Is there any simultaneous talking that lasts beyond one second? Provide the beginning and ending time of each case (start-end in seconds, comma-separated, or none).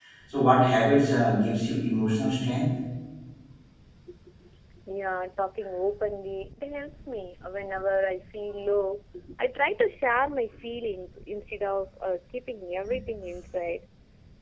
none